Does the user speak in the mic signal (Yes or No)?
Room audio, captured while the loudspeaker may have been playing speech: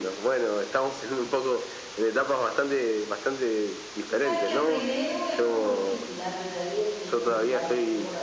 Yes